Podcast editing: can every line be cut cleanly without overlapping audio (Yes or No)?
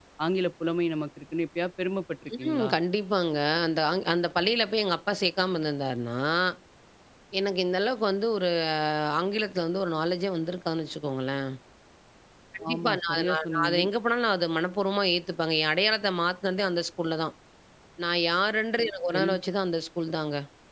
No